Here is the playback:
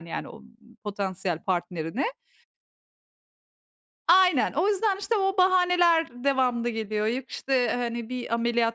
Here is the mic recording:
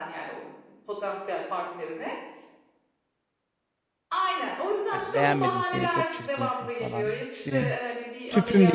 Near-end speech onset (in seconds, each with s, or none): 4.9 s